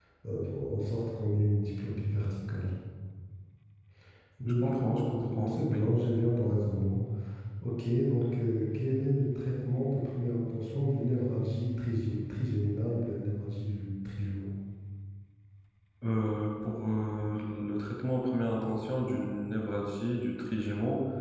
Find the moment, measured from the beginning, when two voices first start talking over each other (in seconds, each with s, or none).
4.5 s